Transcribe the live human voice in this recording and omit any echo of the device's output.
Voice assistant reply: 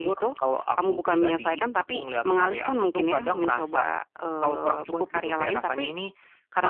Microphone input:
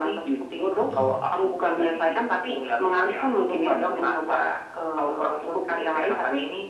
Hmm.

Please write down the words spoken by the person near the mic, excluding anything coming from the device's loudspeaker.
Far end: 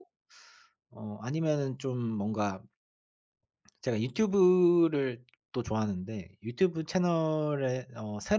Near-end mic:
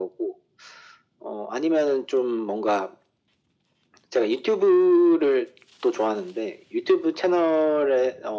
none

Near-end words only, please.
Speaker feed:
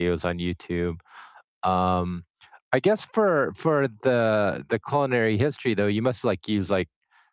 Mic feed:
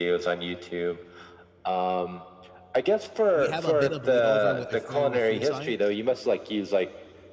we have a bit of bleed over with are you familiar with food science?

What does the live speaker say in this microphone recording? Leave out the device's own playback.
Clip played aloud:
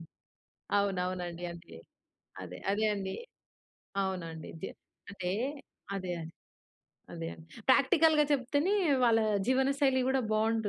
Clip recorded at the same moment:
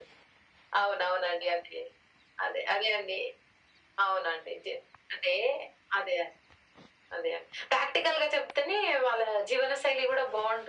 none

